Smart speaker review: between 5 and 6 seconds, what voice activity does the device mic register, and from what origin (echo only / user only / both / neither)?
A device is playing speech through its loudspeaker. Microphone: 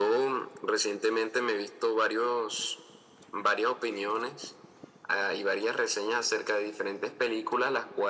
echo only